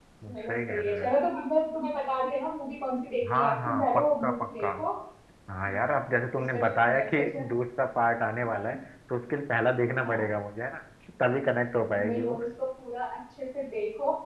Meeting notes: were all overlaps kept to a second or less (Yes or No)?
No